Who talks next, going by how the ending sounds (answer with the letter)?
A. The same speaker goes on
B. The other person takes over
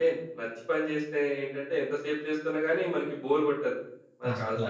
A